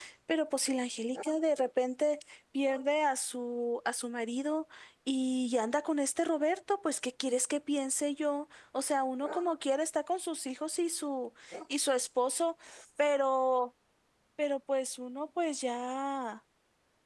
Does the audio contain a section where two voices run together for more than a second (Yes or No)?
No